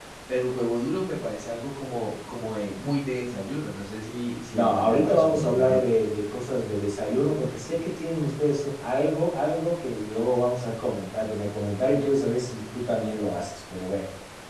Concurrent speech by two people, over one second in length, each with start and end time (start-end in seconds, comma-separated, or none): 4.5-5.8